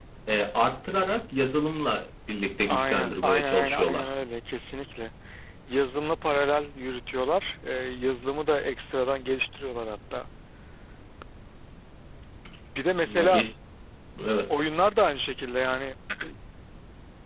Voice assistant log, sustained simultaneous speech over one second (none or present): present